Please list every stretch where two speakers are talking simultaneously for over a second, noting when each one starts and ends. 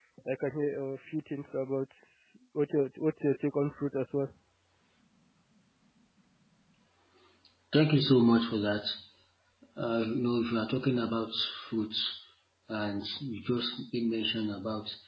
none

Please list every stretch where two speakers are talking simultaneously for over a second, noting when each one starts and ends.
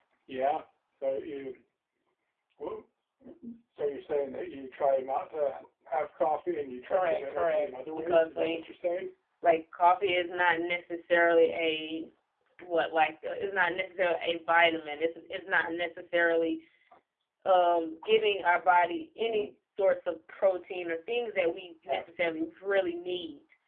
6.9-8.7

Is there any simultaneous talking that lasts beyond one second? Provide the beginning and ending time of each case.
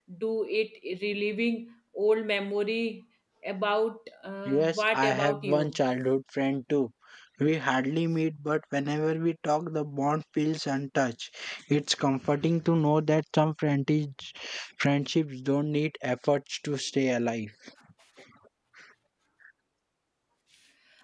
4.4-5.8

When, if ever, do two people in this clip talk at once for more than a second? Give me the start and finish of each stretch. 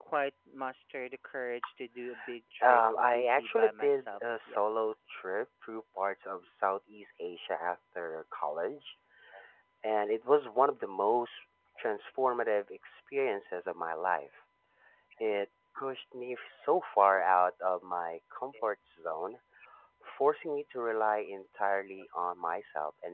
2.6-4.6

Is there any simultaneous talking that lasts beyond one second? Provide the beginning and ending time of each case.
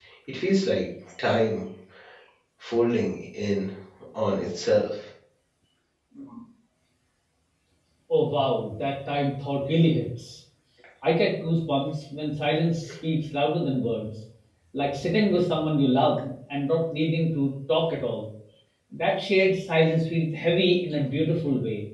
none

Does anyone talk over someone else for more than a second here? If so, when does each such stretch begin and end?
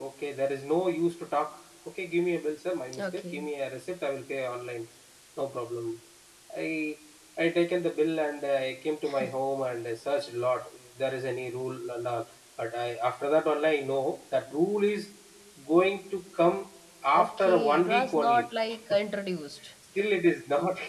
17.1-18.4

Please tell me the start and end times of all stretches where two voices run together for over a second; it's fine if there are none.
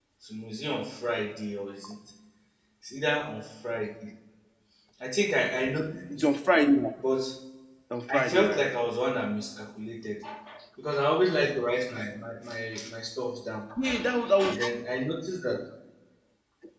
none

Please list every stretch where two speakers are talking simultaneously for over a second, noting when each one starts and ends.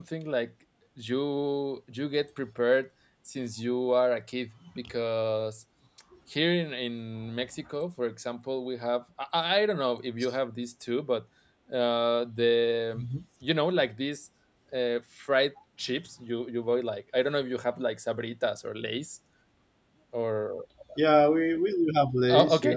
none

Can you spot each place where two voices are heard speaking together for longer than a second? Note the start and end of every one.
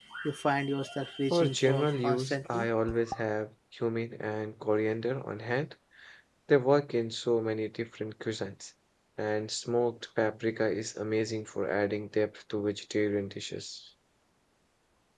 1.3-2.7

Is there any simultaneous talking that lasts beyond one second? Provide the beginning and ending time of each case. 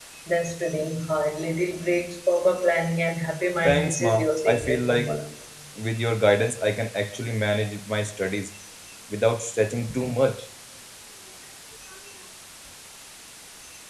3.6-5.1

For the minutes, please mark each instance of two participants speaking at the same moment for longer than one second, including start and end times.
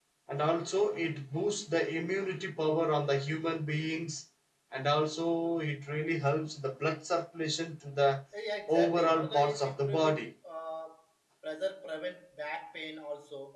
8.7-10.3

